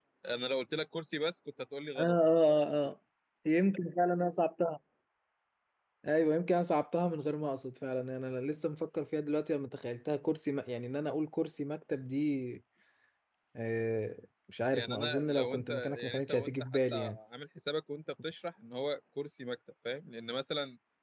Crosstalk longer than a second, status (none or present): present